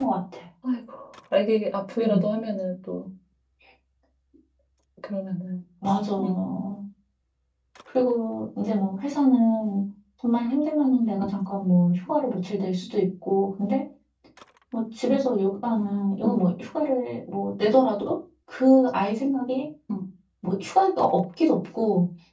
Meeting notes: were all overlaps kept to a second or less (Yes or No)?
Yes